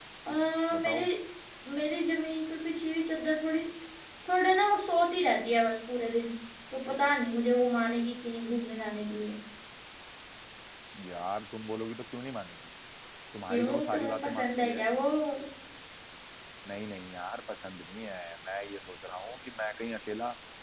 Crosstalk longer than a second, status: present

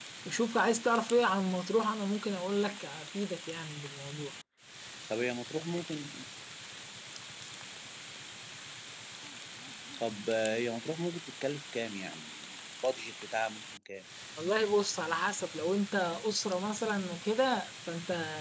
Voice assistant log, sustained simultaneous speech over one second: none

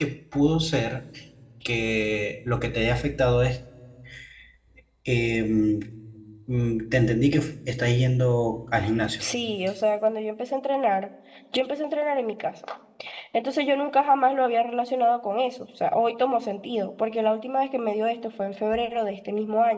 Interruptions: none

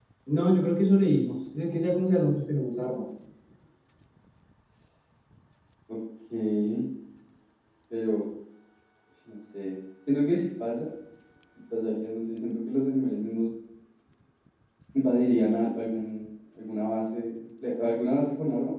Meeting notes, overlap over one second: none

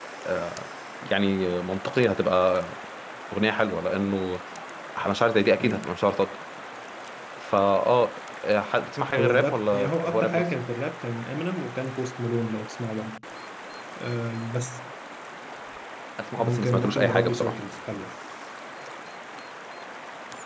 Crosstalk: present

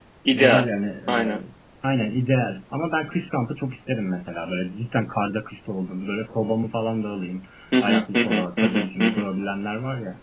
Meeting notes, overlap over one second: present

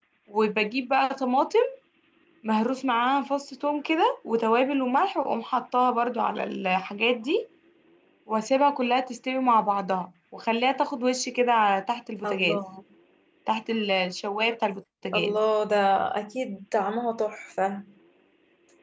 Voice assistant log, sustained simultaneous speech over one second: none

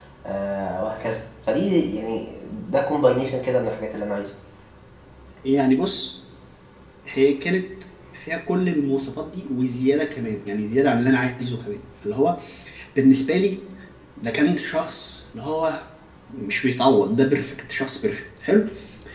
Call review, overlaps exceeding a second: none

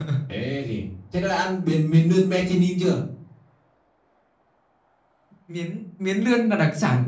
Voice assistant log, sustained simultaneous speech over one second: none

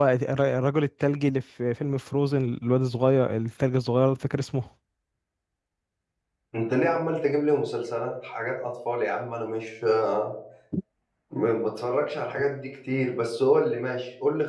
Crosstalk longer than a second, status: none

